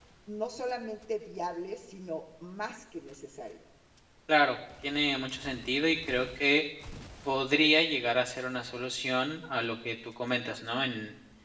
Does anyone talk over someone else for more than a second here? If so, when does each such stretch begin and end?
none

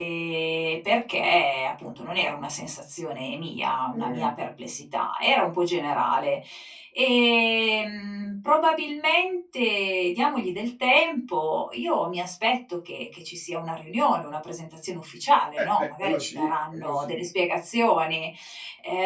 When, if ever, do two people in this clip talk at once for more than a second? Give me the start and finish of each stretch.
15.6-17.2

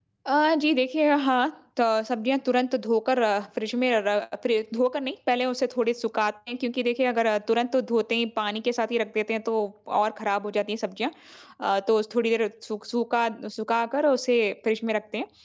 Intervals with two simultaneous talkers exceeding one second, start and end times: none

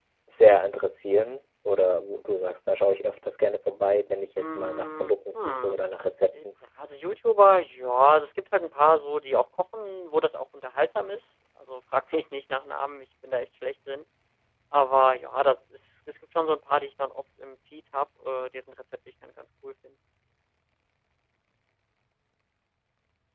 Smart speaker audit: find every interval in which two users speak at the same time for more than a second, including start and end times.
4.6-5.8

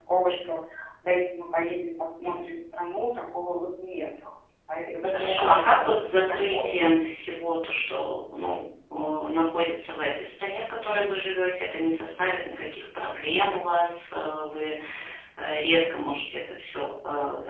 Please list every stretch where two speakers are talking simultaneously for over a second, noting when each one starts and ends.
5.1-6.8

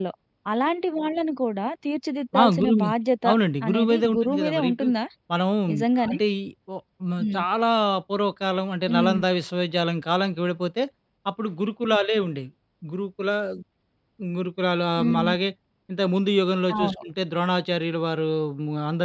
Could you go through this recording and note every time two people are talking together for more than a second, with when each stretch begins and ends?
3.7-4.9

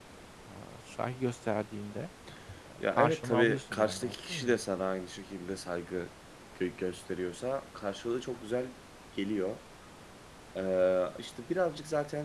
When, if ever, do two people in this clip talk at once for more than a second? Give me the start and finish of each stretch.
2.8-4.6

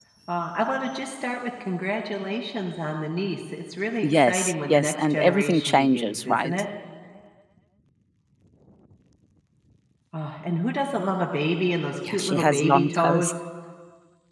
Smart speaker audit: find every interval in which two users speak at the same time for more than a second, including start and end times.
4.0-6.6, 12.1-13.3

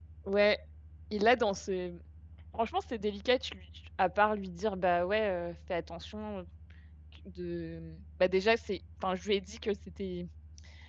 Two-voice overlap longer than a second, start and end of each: none

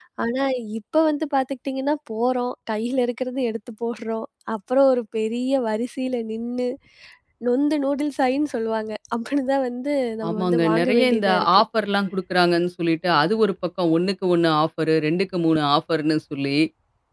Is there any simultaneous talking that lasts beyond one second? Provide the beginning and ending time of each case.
10.3-11.6

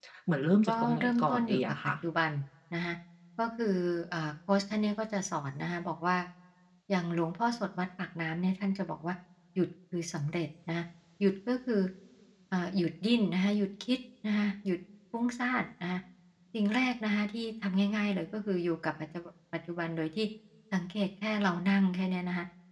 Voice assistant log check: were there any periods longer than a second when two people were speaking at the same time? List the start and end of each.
0.7-1.9

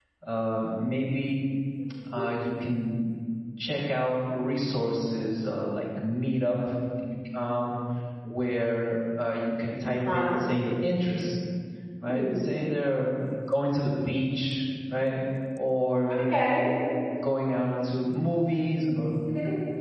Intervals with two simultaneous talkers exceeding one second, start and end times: none

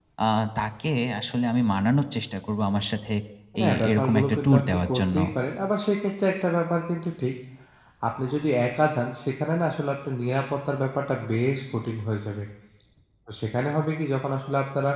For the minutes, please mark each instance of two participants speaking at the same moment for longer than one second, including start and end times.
3.6-5.2

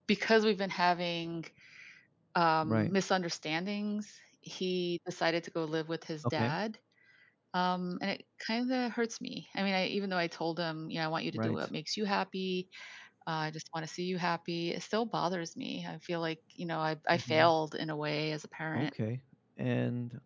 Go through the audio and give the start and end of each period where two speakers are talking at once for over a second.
none

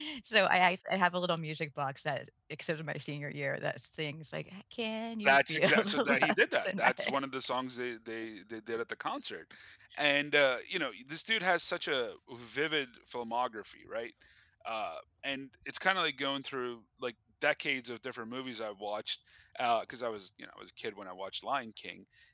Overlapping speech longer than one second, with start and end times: 5.2-7.2

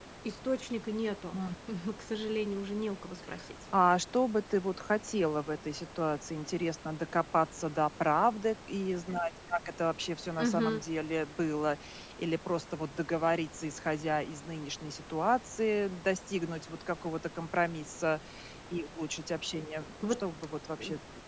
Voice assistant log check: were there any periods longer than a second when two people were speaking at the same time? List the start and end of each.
none

